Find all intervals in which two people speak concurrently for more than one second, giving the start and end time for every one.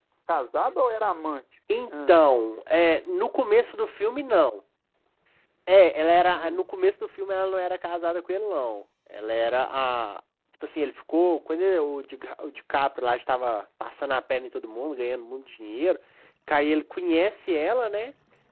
none

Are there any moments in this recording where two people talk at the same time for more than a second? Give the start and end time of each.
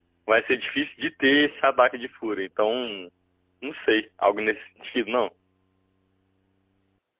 none

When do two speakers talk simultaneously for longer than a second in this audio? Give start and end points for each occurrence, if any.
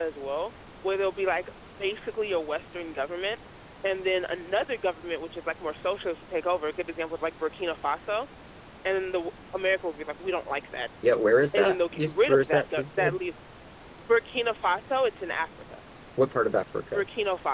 11.5-13.2

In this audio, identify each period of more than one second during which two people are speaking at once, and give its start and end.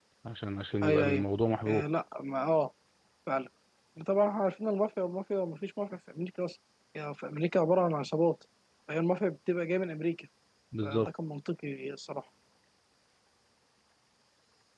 none

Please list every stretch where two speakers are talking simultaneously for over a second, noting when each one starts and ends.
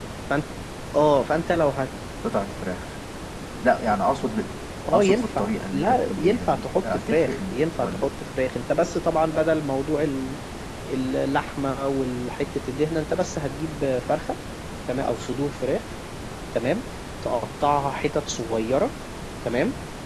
4.9-8.1

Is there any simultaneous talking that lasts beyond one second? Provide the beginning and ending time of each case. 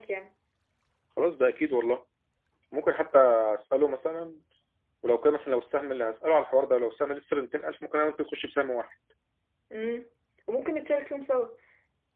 none

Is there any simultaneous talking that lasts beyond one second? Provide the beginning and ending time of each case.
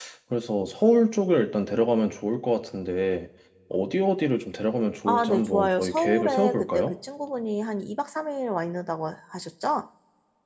5.1-7.0

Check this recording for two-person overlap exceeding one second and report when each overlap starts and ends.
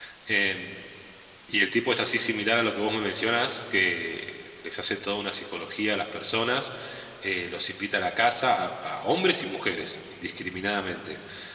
none

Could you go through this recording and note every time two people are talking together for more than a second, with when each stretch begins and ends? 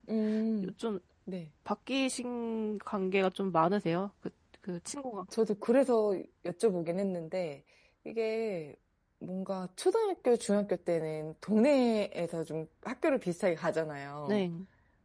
none

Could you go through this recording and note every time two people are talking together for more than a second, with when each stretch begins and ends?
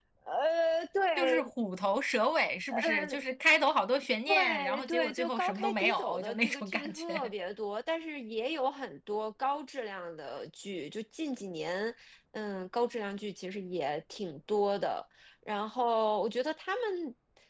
4.3-7.3

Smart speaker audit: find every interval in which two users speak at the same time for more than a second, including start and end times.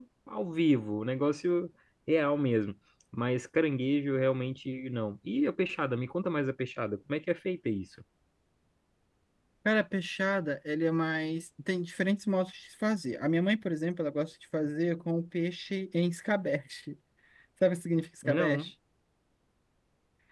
none

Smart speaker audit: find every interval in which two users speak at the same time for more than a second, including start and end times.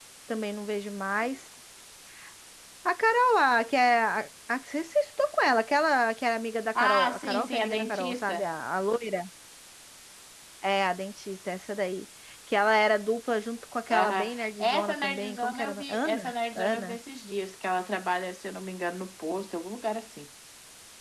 6.8-8.5, 13.9-17.0

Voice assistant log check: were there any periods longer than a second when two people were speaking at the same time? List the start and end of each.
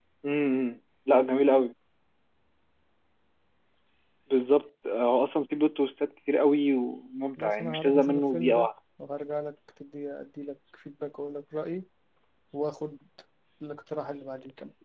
7.4-8.7

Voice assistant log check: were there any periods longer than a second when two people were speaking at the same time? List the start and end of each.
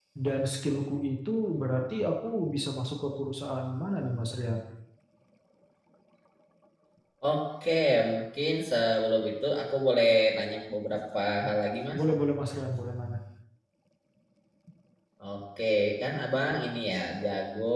none

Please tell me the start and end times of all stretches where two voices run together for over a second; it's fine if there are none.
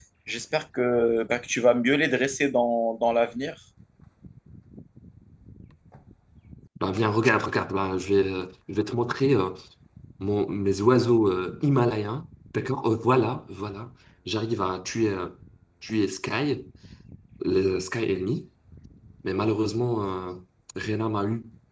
none

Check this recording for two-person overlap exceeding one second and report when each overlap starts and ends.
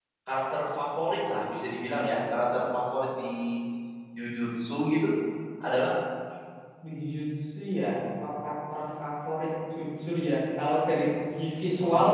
none

